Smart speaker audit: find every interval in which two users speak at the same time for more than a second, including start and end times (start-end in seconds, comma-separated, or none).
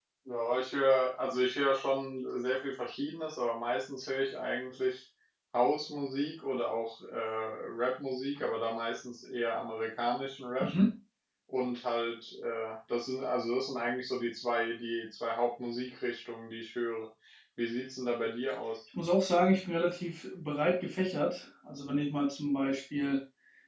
none